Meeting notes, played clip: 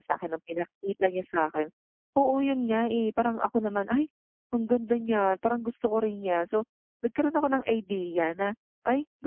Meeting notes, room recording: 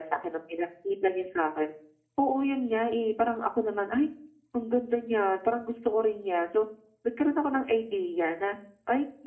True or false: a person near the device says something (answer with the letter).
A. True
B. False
B